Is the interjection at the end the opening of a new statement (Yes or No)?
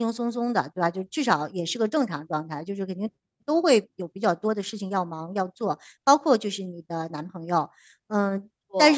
No